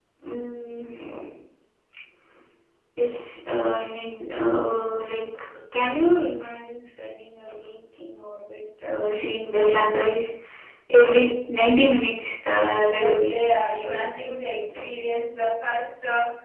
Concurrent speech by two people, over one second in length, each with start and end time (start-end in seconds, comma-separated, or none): 13.0-14.9